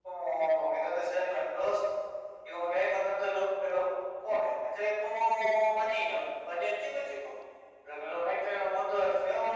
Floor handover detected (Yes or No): No